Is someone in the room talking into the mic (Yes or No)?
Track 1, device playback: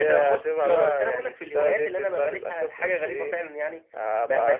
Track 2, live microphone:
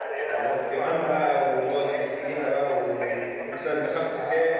Yes